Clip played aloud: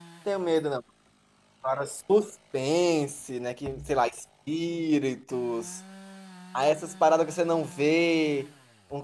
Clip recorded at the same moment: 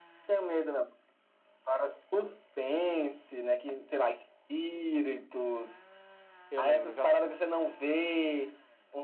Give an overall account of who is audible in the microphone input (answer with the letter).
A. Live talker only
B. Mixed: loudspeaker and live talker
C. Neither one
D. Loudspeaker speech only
B